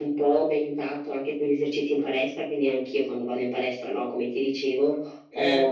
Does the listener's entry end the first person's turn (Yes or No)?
No